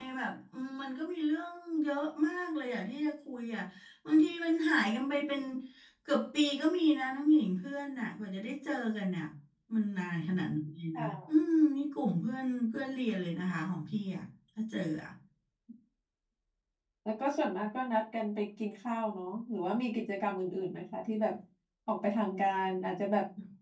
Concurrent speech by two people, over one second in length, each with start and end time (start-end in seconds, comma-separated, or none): none